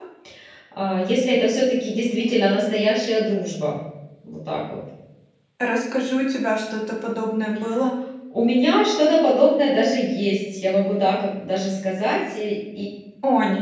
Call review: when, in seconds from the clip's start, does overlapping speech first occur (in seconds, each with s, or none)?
none